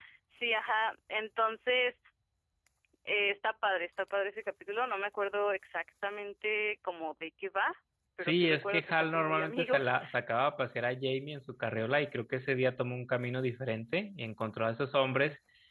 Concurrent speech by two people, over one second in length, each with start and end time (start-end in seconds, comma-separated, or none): 8.2-9.9